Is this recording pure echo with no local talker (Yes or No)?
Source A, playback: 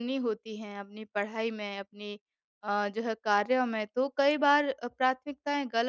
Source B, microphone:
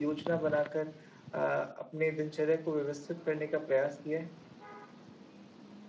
No